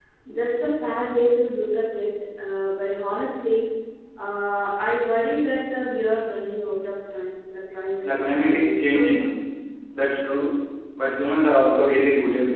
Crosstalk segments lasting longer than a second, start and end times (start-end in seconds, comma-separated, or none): 8.0-9.3